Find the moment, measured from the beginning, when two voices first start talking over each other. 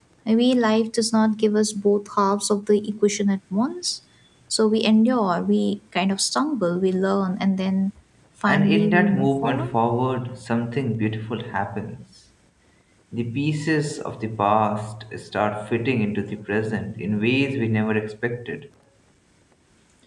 8 s

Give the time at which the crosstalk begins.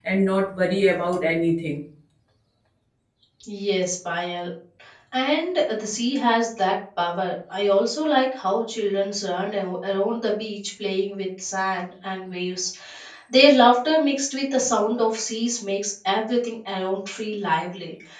none

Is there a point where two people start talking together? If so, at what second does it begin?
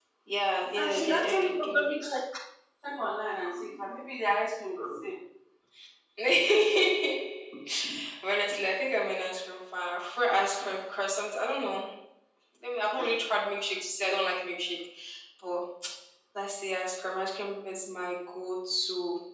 1 s

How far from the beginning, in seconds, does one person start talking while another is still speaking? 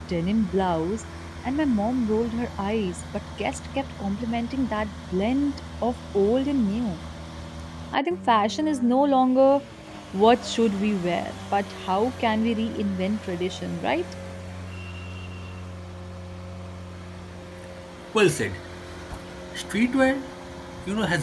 none

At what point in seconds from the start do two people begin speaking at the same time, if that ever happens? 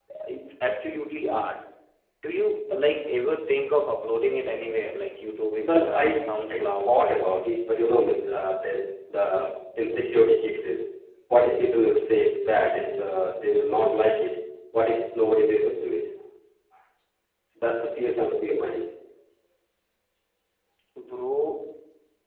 5 s

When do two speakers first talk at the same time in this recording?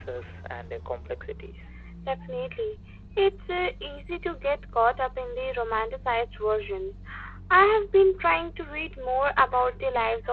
none

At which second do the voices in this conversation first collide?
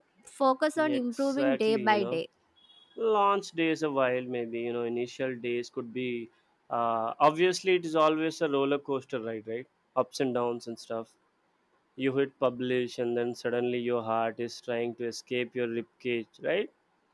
1 s

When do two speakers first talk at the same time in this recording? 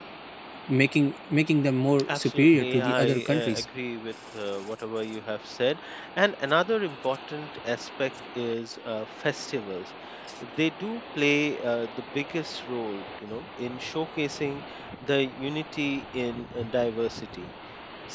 2 s

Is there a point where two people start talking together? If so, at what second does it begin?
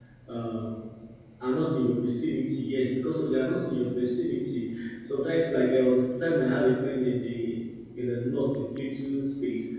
none

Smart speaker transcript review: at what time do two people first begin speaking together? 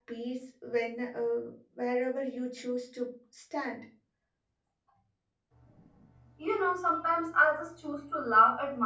none

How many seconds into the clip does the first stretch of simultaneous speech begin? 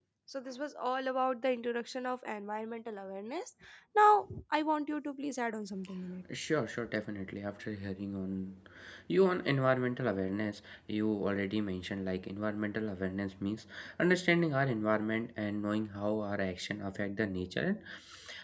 none

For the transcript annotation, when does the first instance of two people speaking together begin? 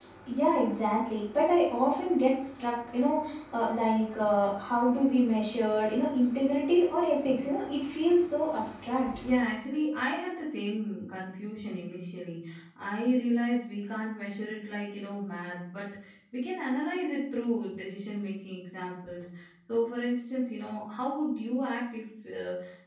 none

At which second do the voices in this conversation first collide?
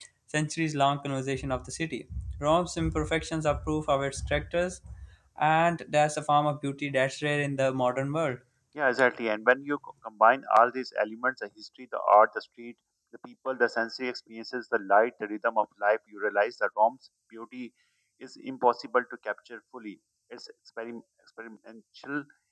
none

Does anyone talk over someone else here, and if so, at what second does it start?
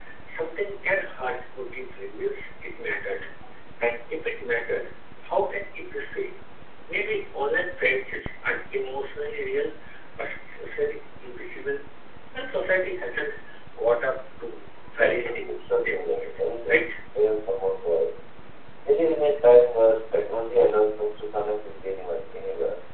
15 s

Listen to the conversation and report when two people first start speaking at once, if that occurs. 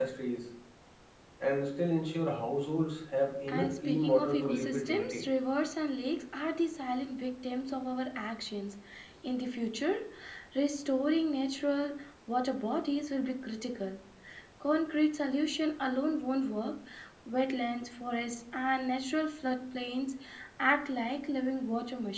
3 s

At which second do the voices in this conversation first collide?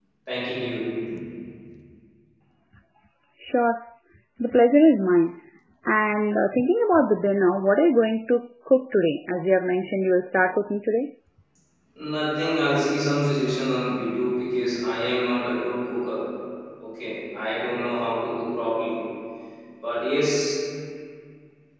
none

